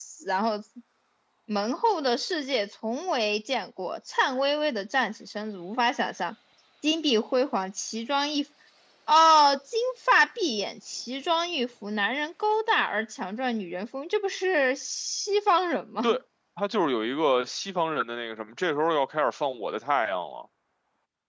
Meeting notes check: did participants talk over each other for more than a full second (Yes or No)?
No